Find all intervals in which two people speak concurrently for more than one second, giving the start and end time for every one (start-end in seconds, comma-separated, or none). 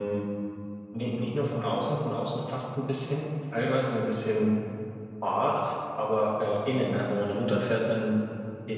none